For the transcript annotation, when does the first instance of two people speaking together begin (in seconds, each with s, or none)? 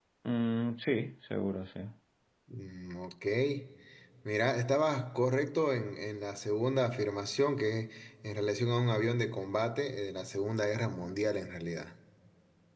none